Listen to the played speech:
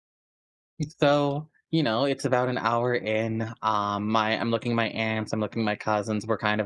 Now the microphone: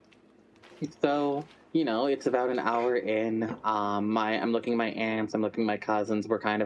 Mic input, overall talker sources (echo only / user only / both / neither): echo only